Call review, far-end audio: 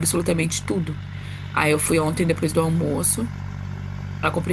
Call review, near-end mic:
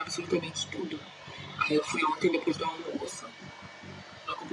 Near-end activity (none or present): none